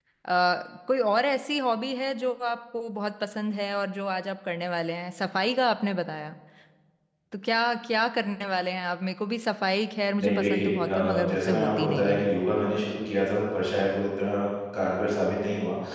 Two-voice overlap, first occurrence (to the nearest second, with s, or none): 10 s